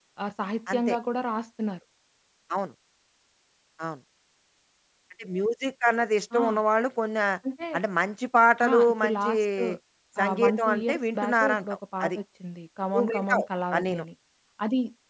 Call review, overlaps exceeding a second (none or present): present